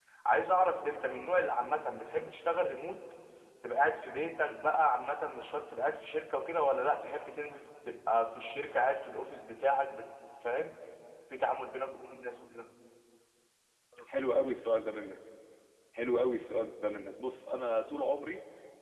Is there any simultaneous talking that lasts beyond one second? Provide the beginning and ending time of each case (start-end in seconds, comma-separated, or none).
none